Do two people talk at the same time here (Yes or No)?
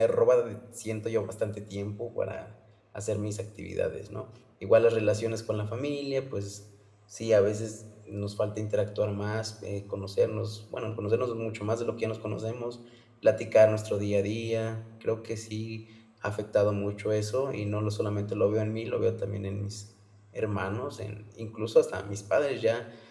No